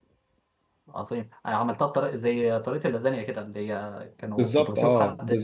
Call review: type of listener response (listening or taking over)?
taking over